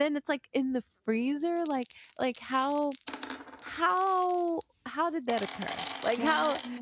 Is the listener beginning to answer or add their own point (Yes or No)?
No